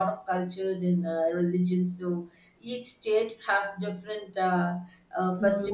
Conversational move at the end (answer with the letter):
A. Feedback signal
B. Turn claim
B